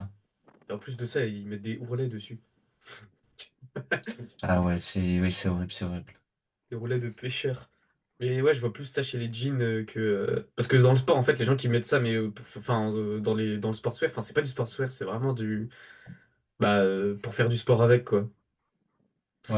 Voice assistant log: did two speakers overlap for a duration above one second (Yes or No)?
No